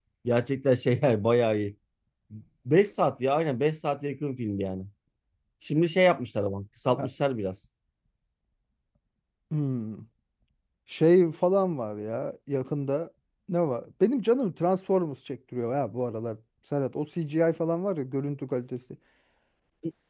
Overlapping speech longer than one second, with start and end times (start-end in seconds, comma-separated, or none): none